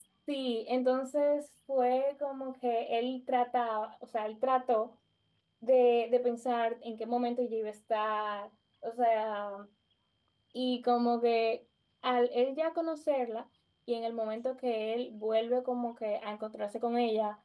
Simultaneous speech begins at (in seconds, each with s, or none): none